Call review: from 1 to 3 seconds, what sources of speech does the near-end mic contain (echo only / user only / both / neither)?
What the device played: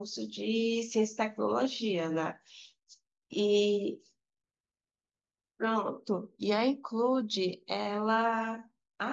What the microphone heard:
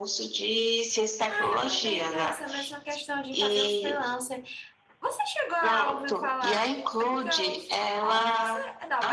both